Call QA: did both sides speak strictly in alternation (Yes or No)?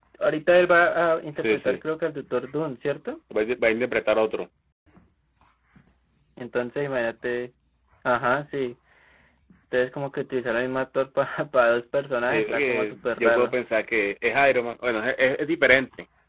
No